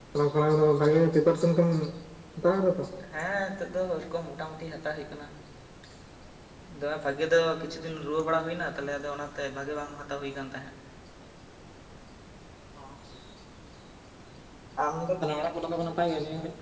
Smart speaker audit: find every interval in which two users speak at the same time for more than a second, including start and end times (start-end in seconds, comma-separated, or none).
none